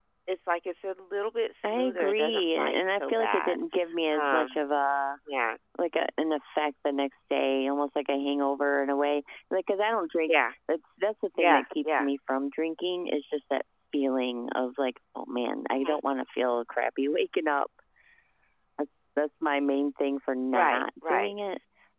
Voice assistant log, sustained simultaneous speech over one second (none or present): present